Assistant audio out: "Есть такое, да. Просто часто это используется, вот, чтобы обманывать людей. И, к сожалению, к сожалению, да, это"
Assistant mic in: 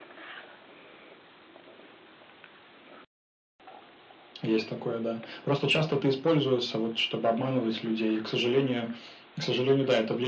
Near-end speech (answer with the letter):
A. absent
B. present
A